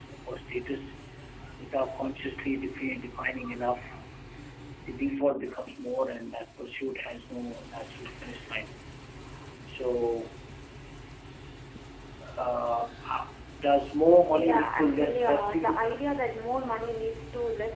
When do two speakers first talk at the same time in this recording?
14.3 s

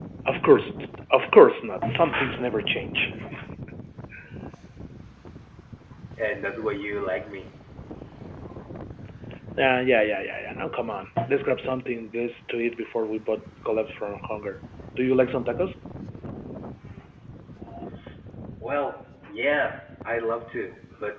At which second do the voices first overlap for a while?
none

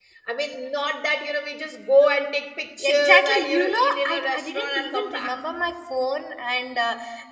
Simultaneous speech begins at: 2.8 s

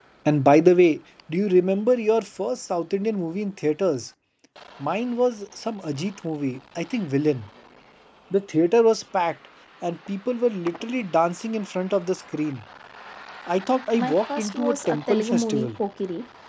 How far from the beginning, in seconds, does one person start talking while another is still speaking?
13.9 s

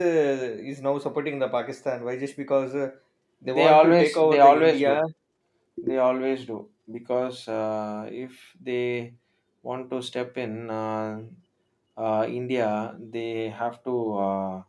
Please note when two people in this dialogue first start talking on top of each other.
3.5 s

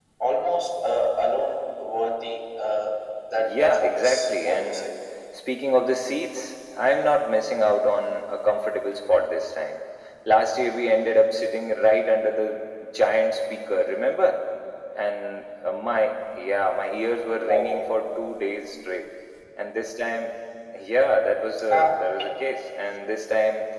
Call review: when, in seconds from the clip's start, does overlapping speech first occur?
3.3 s

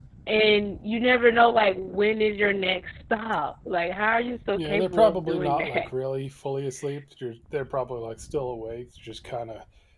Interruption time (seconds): 4.6 s

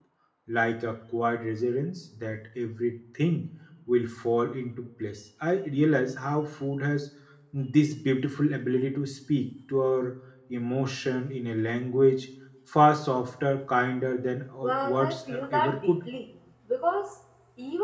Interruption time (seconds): 14.6 s

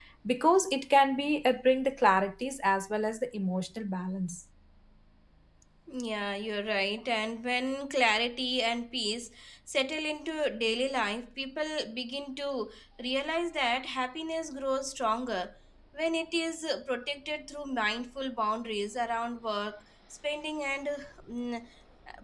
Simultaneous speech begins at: none

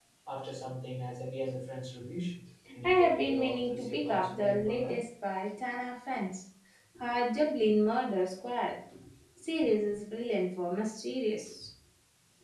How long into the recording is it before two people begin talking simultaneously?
2.8 s

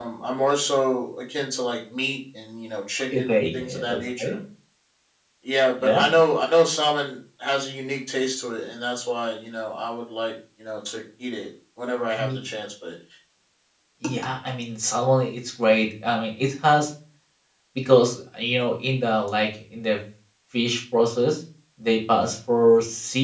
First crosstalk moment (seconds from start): 3.2 s

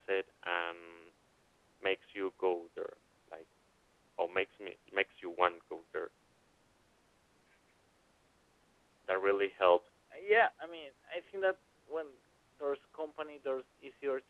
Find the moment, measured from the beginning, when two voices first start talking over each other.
none

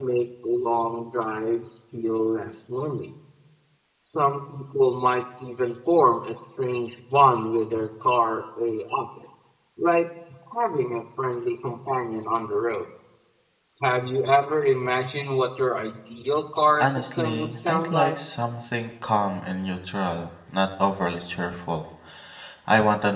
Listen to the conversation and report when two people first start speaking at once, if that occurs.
16.8 s

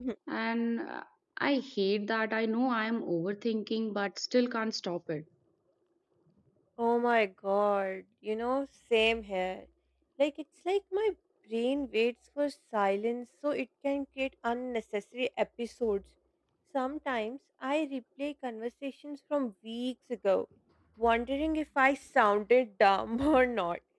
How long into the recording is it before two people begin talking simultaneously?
none

